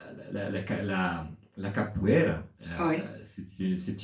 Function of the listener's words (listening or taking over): listening